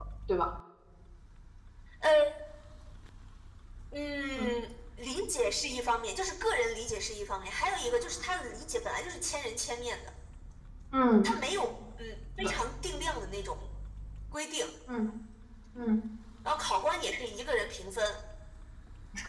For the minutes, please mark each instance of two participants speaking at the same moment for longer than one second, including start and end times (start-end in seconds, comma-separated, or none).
none